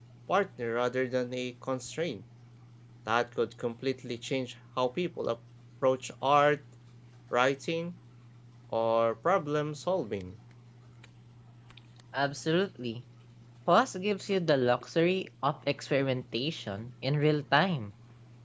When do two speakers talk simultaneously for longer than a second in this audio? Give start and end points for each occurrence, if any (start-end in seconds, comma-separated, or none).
none